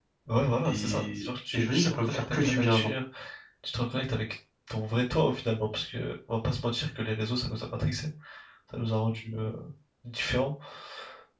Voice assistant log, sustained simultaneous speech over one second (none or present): present